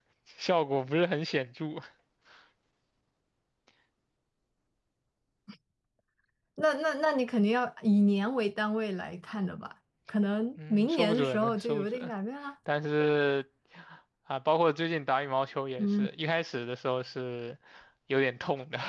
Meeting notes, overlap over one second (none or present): present